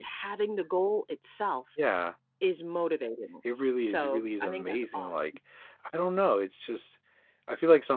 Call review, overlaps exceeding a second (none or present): present